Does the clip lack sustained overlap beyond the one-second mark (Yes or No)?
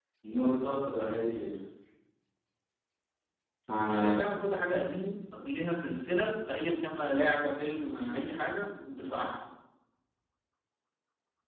Yes